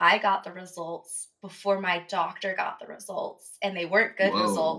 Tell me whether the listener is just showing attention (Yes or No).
Yes